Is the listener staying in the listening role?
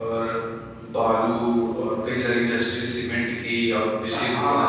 No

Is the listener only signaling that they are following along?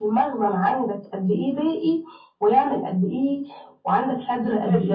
No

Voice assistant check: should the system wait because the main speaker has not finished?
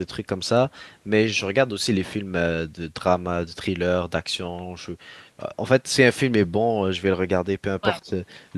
Yes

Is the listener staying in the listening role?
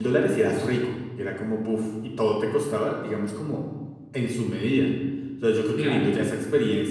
Yes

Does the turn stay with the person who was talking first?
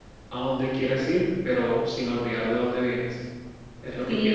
No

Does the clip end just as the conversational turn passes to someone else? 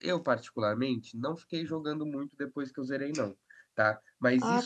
Yes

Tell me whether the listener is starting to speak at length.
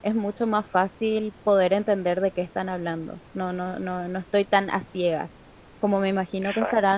No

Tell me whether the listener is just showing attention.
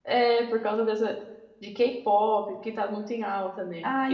No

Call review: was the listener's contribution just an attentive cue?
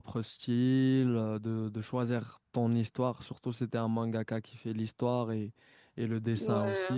Yes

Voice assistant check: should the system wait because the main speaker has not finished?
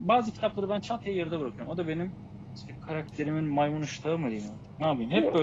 Yes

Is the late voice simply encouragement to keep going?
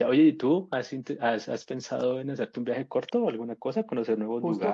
No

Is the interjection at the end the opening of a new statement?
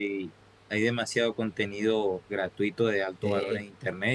No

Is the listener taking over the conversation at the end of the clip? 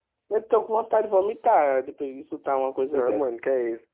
Yes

